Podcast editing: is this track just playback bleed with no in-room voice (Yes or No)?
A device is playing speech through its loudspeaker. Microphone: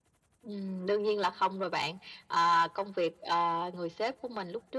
Yes